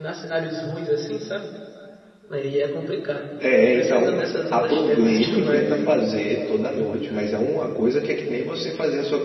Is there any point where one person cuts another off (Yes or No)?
Yes